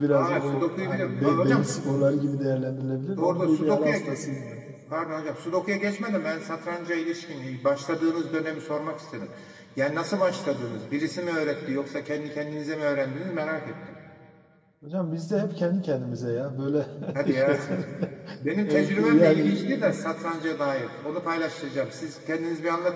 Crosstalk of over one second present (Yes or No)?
Yes